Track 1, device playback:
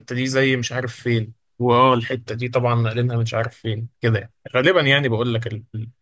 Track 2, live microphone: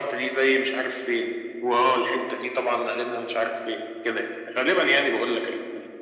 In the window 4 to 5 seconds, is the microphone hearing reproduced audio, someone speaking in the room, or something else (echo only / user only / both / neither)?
echo only